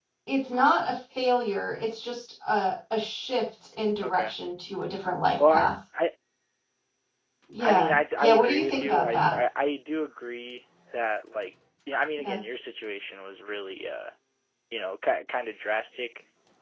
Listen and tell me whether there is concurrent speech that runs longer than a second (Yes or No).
Yes